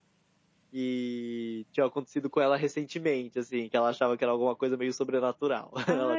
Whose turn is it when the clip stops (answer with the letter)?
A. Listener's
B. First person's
A